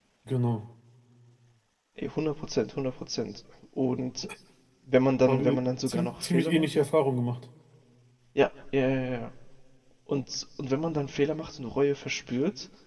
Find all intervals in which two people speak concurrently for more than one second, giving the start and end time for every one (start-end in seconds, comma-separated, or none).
5.2-6.7